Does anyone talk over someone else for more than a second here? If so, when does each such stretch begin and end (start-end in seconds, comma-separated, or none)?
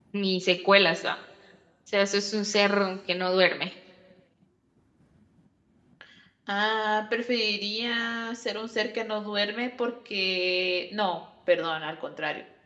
none